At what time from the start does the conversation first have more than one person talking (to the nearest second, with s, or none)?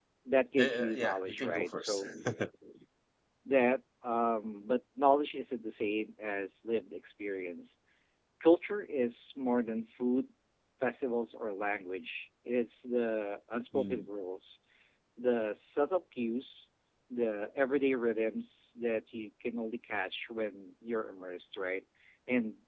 1 s